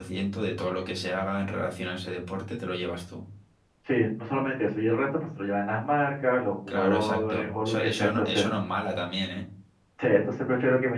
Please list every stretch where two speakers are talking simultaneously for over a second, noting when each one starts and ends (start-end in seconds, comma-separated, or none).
6.7-8.5